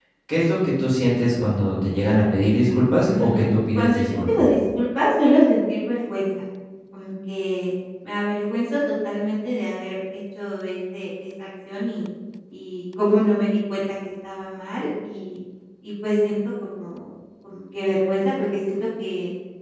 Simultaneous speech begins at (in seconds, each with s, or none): 3.0 s